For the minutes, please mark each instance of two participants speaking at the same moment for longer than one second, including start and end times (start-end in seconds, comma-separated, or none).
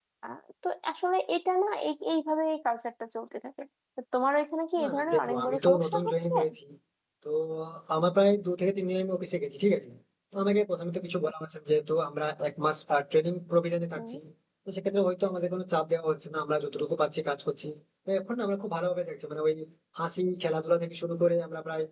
4.8-6.3